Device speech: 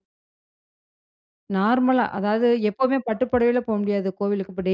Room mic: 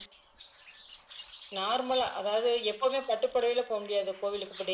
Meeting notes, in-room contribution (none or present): none